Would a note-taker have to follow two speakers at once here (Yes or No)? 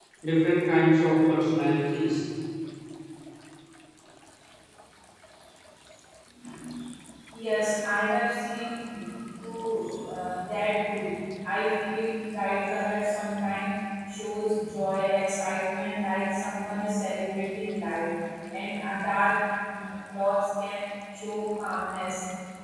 No